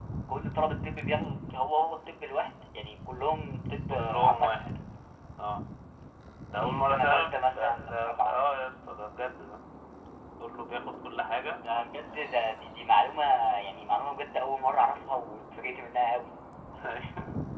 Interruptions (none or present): present